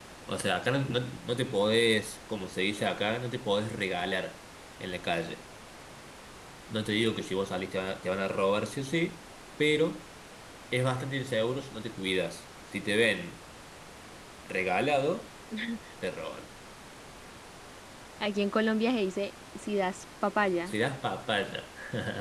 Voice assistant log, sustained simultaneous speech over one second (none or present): none